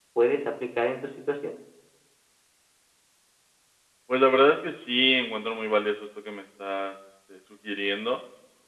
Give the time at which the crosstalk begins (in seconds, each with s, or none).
none